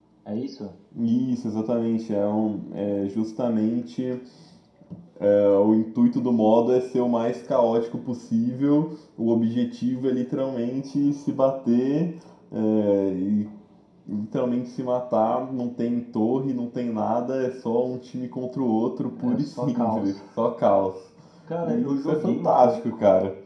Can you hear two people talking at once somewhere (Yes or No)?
Yes